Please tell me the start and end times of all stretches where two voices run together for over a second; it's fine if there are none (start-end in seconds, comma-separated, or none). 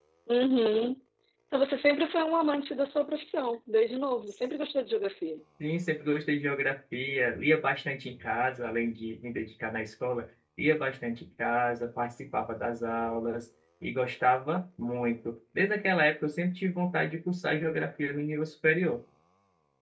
none